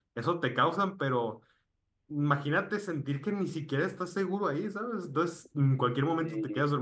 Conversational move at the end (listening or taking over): listening